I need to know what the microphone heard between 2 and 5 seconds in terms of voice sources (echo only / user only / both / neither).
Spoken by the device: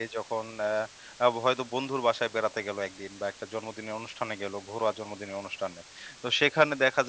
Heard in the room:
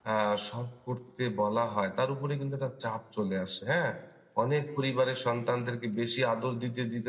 user only